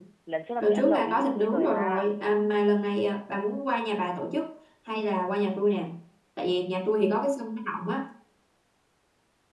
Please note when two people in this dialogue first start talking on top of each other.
0.6 s

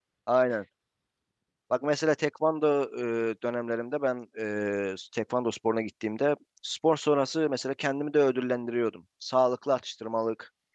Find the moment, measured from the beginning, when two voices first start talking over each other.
none

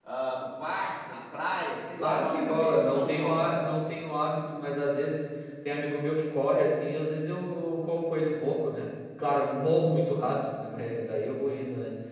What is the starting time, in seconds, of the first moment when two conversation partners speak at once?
2.0 s

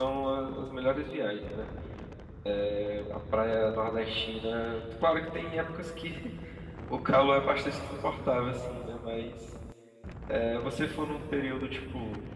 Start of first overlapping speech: none

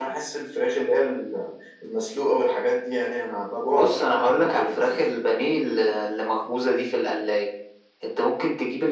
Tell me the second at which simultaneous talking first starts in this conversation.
3.7 s

